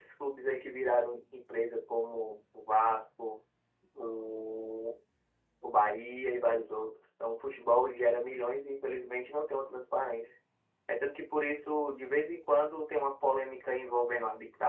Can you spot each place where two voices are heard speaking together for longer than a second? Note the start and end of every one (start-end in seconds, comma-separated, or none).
none